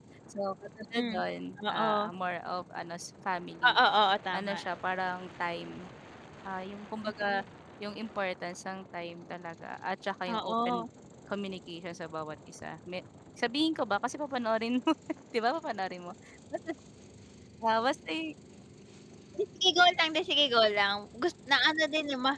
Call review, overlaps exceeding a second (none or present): none